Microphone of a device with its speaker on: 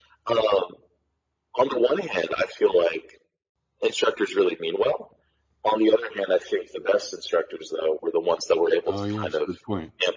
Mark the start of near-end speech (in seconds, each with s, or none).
8.9 s